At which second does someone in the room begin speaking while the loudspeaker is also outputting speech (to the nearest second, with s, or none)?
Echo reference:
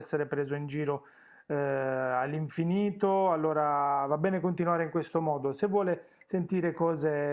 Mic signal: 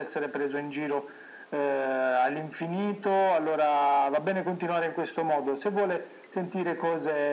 none